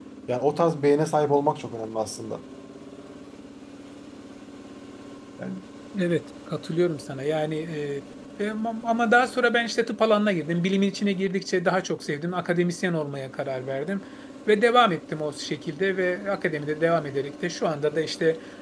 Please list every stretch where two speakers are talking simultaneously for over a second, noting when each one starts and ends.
none

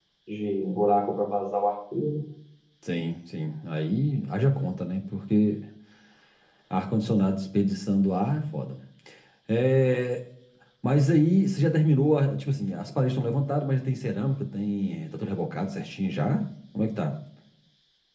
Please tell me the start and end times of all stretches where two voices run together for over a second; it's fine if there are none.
none

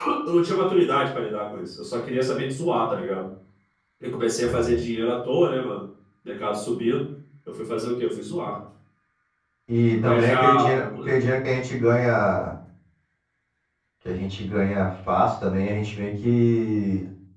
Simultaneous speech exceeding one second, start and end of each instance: 9.9-11.2

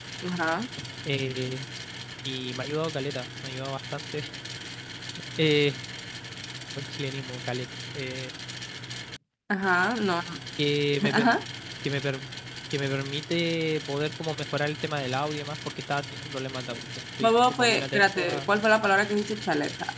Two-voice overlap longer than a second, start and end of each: 17.2-18.5

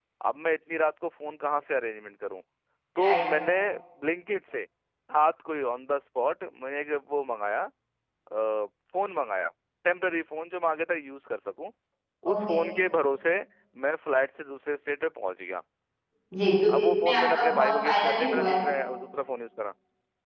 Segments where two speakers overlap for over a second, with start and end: 16.8-18.6

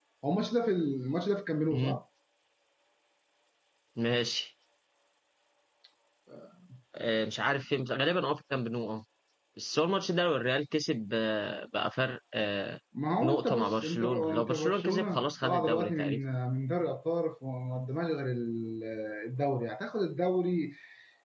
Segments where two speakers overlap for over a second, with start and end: 13.2-16.2

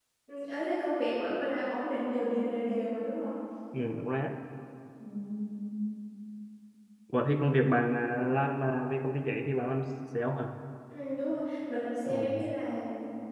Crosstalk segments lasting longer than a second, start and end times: none

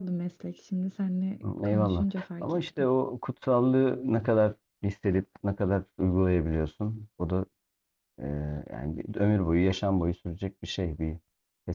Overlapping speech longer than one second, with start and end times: 1.6-2.9

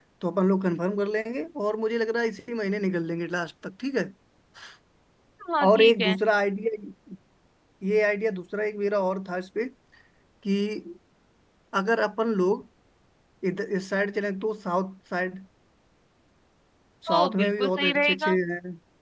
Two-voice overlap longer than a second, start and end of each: 17.1-18.4

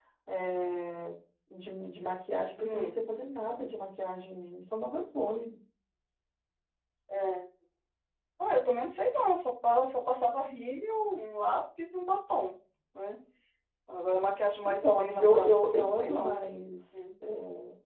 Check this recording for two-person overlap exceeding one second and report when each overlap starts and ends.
14.7-16.4

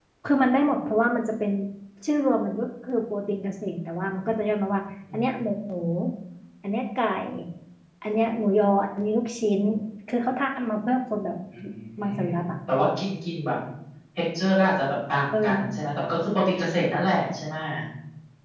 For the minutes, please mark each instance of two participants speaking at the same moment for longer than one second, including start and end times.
none

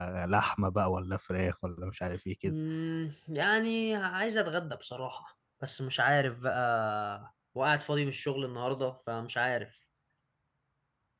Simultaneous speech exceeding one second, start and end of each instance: none

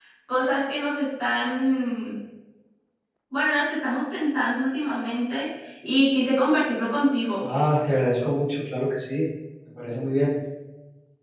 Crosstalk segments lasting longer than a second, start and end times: none

